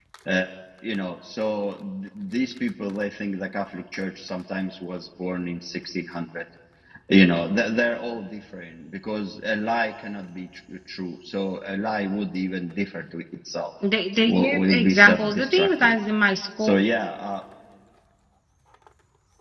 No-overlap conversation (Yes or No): No